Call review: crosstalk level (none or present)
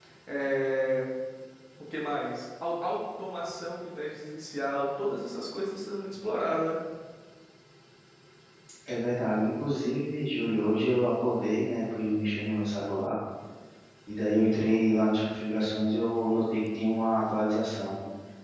none